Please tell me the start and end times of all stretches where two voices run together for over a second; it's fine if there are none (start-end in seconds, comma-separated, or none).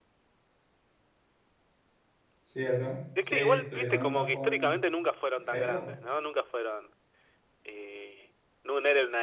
3.3-4.7